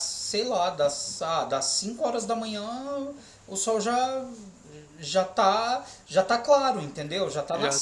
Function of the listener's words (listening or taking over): taking over